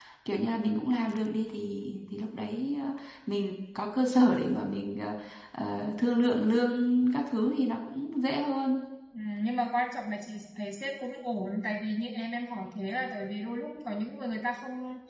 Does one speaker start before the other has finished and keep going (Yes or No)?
No